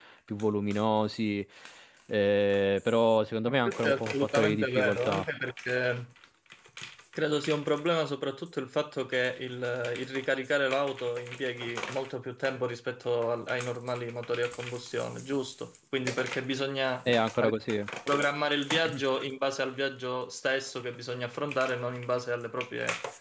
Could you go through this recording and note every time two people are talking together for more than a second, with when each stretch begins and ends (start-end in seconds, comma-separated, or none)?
3.5-5.2